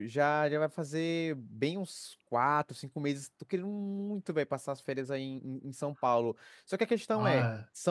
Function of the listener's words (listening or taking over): listening